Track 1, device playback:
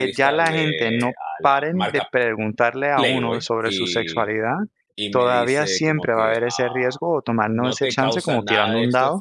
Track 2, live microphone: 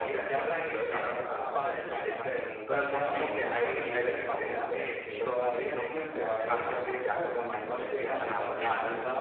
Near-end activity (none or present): present